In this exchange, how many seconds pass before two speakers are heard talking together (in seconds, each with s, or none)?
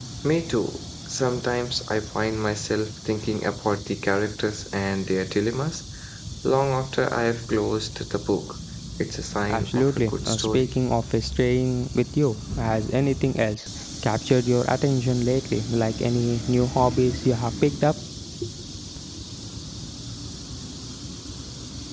9.5 s